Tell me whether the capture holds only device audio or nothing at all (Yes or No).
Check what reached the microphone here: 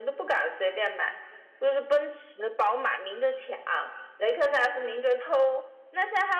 Yes